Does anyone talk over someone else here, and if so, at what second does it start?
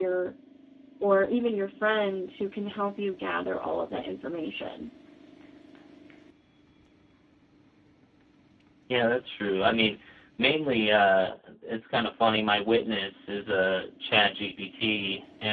none

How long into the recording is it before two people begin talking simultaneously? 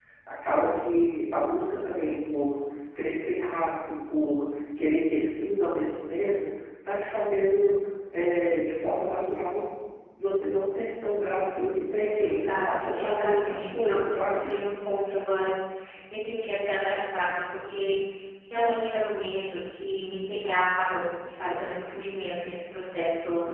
12.3 s

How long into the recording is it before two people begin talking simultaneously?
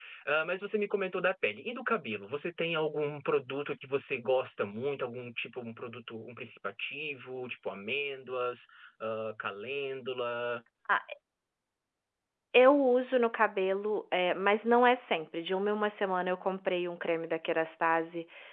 none

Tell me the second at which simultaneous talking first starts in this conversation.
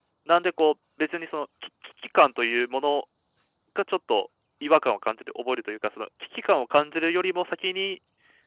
none

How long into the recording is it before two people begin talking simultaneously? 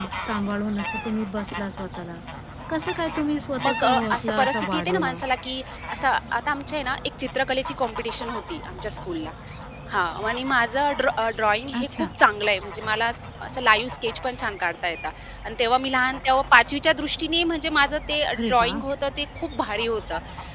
3.6 s

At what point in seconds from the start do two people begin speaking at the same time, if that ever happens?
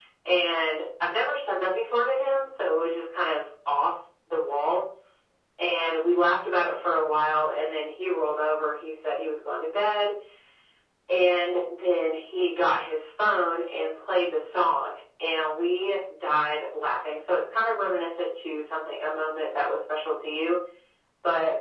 none

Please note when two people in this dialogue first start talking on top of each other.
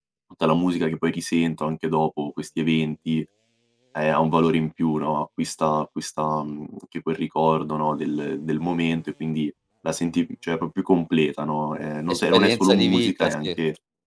12.1 s

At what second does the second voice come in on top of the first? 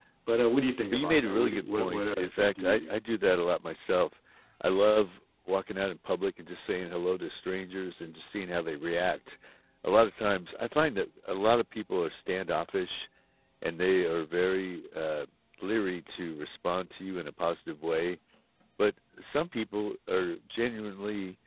0.9 s

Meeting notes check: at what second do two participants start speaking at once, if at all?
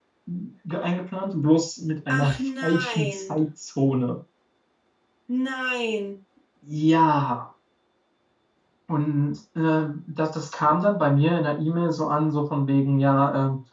2.1 s

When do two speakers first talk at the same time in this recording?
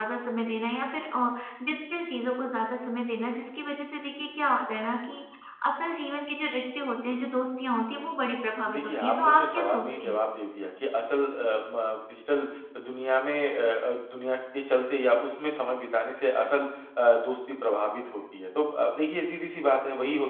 8.7 s

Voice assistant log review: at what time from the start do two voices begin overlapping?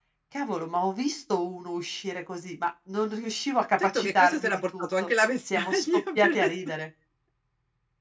3.8 s

